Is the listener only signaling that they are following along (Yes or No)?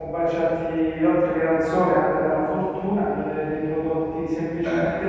Yes